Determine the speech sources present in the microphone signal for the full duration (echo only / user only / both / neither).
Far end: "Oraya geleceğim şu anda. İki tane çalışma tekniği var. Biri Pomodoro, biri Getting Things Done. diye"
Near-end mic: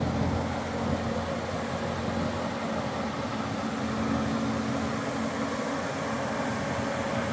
neither